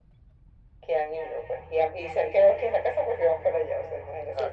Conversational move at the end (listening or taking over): listening